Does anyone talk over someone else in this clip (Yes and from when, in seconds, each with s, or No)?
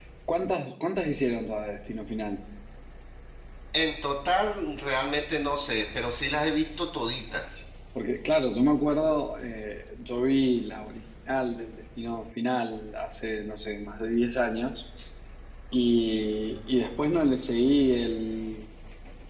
No